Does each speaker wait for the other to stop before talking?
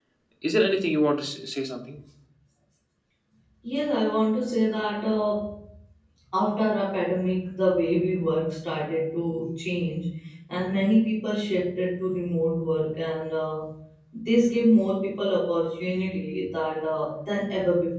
Yes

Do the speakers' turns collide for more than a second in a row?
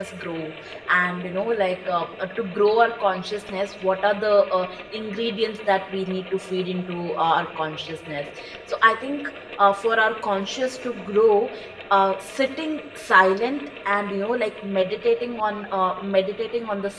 No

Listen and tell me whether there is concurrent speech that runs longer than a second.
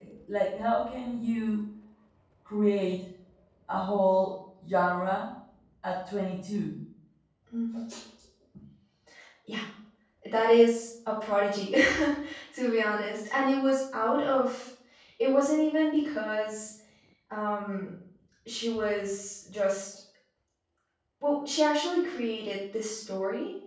No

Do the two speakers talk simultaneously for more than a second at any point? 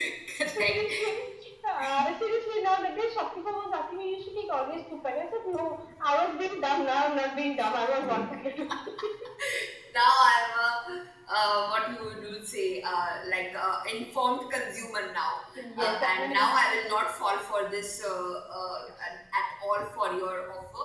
Yes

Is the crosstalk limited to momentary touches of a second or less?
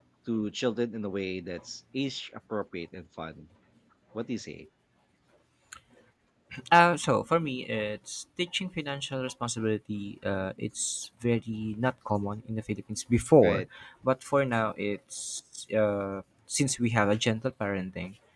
Yes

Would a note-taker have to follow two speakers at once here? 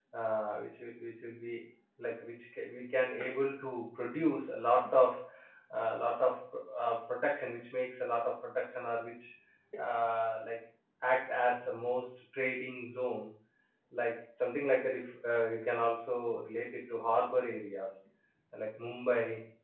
No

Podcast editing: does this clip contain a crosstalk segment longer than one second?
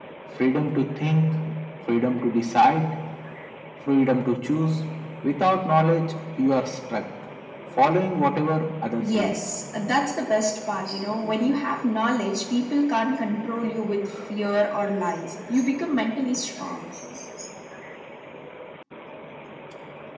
No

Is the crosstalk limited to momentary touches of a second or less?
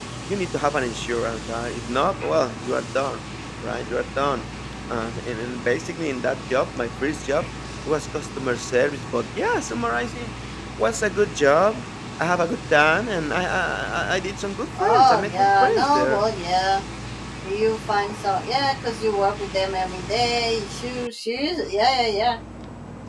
No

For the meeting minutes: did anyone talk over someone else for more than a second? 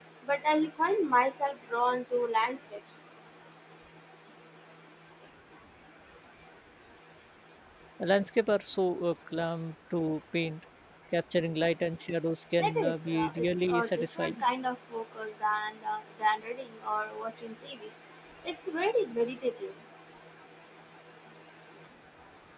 Yes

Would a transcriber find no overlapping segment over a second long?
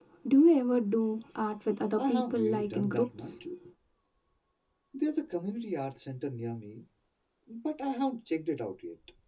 No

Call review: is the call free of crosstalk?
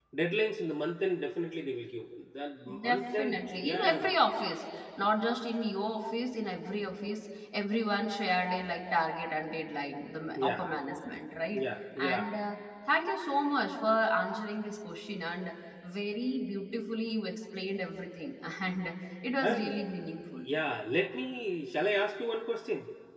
No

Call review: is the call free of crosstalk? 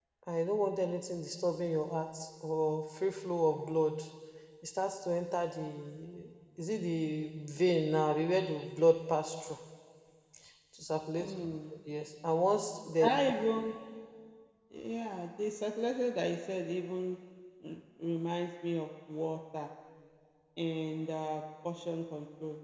Yes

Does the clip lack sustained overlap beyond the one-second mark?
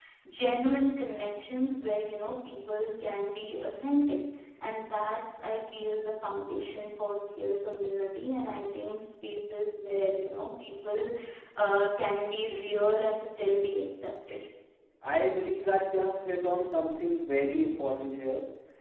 Yes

